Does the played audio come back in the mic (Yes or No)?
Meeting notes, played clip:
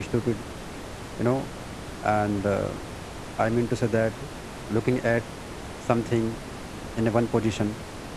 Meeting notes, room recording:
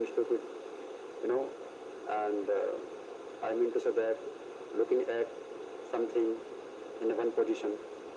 Yes